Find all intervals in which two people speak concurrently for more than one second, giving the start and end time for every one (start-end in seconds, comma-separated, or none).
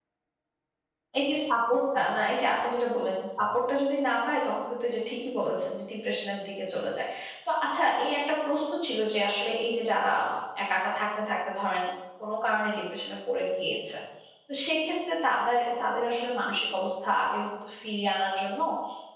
none